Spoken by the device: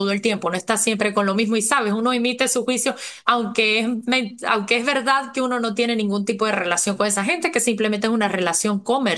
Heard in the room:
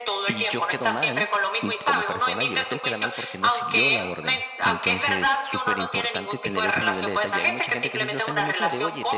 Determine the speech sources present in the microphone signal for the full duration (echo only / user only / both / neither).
both